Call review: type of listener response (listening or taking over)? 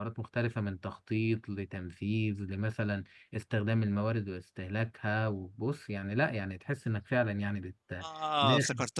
taking over